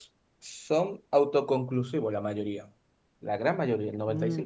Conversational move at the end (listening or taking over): taking over